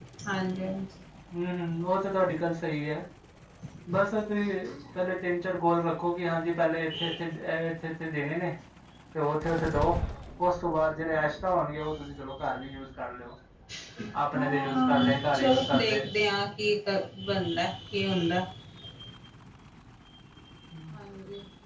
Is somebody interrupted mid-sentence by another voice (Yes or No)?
Yes